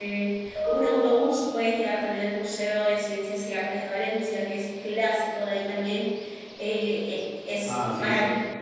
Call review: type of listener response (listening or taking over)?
taking over